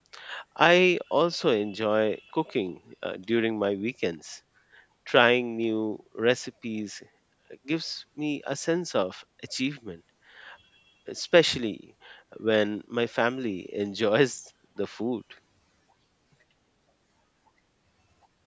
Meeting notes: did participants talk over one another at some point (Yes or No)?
No